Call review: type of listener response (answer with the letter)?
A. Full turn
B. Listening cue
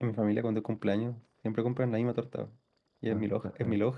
B